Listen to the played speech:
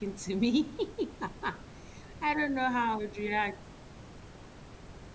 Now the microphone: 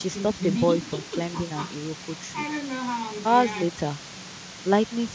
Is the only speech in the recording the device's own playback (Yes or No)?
No